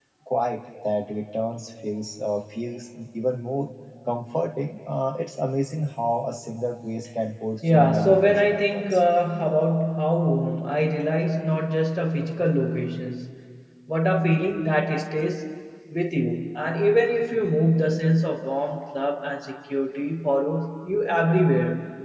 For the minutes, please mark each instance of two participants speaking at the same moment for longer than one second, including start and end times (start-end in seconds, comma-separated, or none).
7.6-9.0